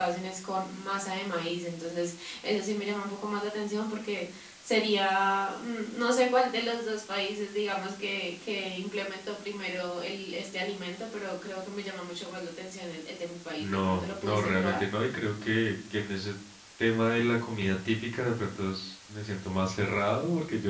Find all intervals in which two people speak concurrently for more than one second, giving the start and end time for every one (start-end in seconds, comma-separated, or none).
13.6-14.8